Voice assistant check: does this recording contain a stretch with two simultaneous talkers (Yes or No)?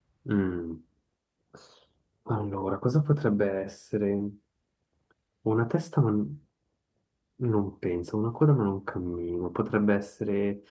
No